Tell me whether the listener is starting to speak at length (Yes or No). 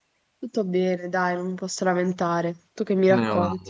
Yes